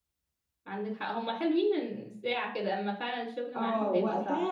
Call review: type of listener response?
taking over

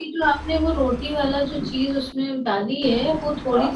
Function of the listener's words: listening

